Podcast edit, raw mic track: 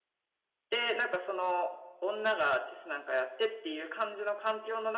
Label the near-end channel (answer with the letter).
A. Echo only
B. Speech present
B